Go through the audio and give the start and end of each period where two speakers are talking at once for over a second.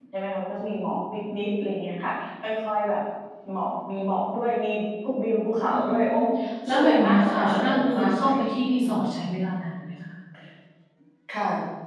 6.7-8.4

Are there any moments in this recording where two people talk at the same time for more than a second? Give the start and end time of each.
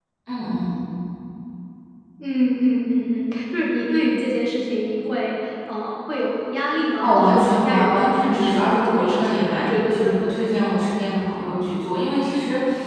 7.0-10.6

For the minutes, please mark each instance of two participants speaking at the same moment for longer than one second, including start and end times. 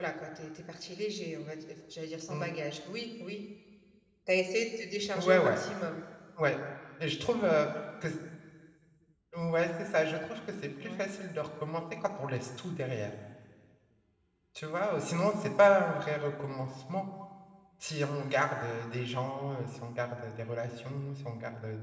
none

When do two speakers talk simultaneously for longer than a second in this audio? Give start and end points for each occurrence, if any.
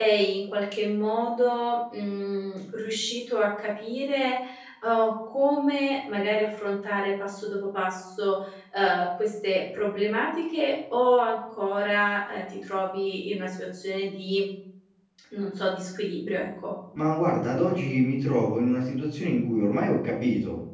none

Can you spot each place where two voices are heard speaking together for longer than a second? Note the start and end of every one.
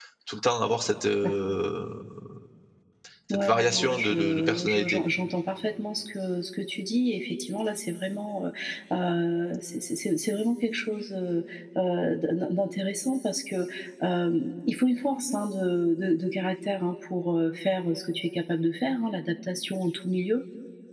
3.3-5.0

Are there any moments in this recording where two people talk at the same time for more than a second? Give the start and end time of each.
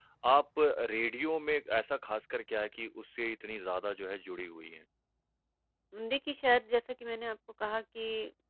none

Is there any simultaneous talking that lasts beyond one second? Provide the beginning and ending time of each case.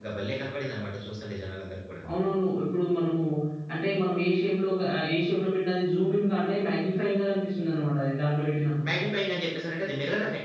none

